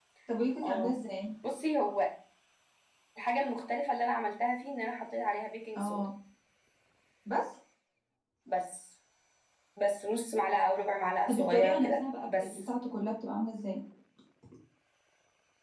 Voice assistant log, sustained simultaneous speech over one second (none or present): present